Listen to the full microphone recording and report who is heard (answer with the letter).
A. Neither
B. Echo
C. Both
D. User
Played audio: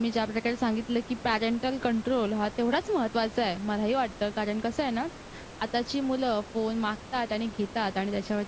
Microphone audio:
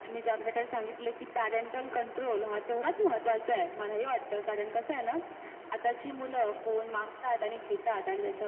B